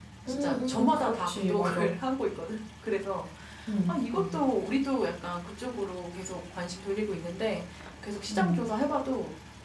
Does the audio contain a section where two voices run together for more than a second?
Yes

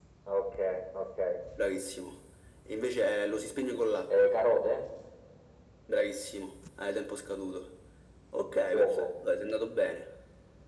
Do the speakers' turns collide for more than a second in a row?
No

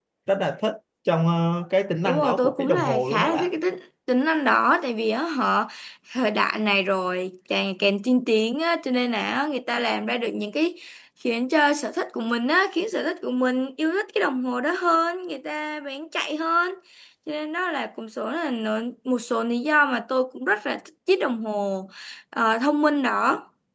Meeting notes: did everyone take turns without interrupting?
No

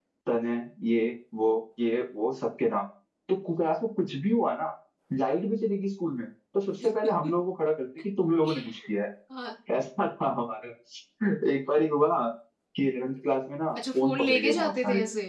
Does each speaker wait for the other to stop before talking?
No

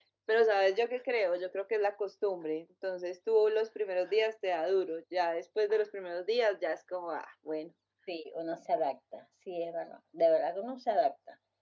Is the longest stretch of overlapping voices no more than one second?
Yes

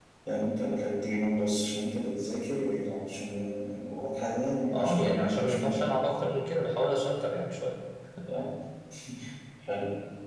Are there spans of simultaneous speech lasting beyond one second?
Yes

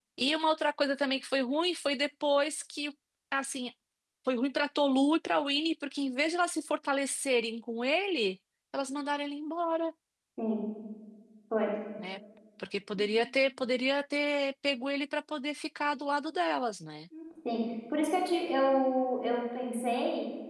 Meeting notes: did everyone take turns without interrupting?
Yes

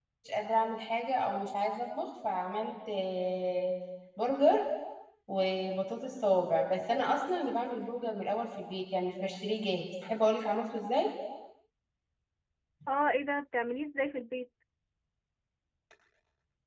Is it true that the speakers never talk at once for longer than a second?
Yes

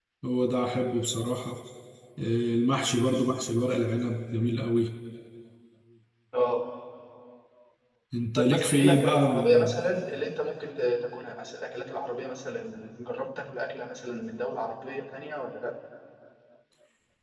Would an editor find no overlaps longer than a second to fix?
No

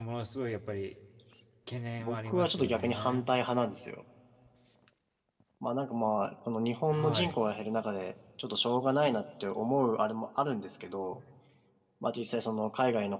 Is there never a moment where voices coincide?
No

